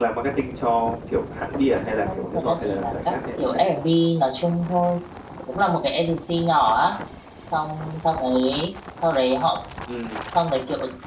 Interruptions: present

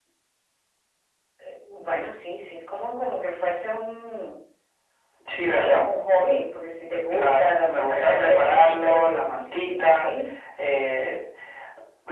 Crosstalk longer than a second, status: present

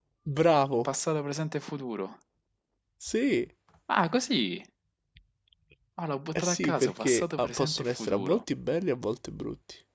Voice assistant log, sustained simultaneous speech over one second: present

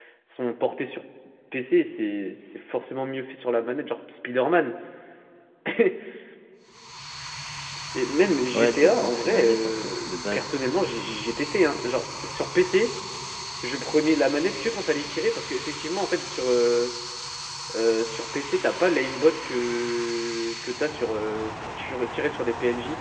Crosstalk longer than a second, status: present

